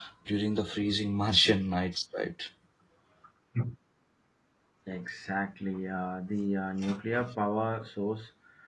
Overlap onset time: none

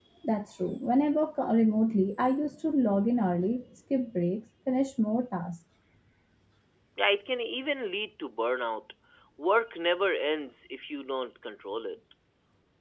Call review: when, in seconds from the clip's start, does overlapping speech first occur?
none

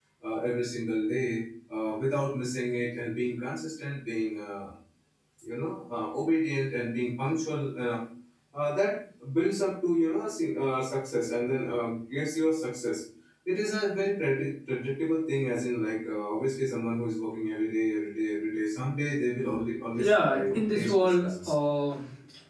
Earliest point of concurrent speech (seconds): 20 s

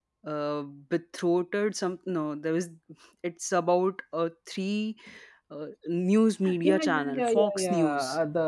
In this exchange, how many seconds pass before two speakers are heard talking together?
6 s

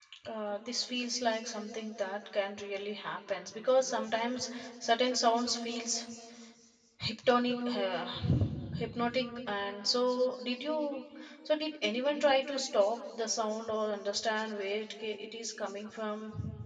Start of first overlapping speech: none

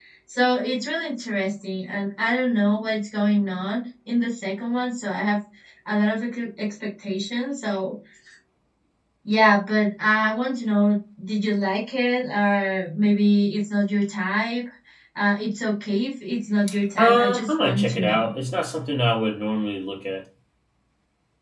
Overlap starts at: 17 s

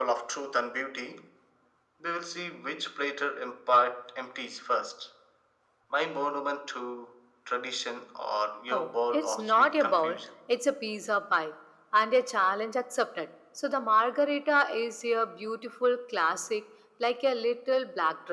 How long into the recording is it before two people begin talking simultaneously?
9 s

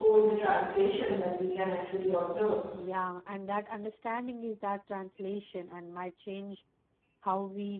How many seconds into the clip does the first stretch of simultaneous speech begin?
none

